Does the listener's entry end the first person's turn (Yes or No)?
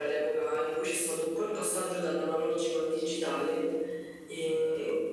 No